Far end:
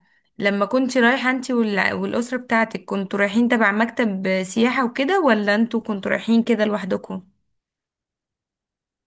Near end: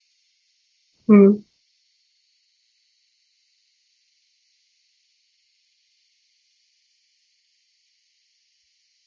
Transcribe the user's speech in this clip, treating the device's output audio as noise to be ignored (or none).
مم.